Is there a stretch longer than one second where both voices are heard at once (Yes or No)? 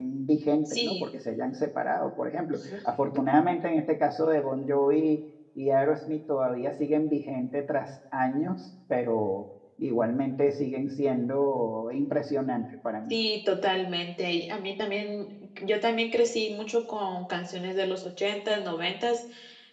No